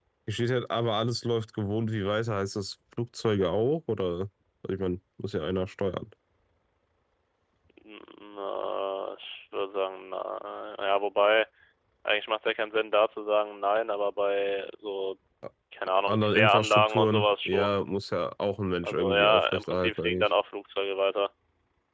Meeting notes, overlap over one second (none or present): present